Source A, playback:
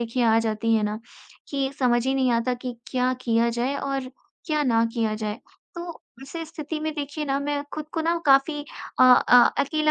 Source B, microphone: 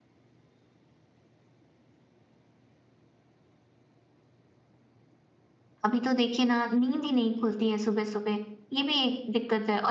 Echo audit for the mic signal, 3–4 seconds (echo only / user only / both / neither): neither